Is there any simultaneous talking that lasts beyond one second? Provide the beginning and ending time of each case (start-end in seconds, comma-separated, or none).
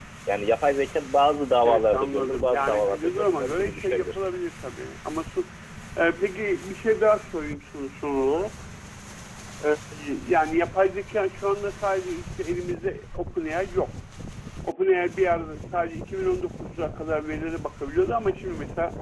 1.6-4.3